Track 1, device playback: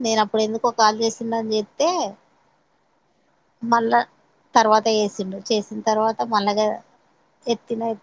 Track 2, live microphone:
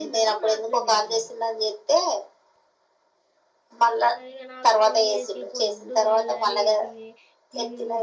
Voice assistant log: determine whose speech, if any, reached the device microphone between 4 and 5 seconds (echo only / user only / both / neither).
both